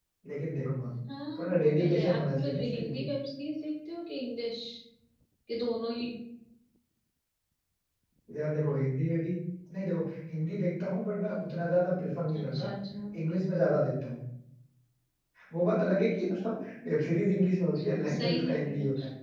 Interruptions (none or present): present